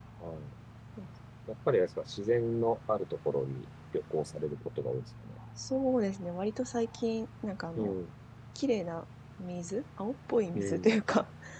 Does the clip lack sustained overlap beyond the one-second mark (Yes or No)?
Yes